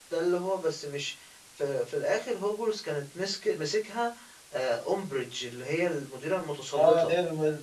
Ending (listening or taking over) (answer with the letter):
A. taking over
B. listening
A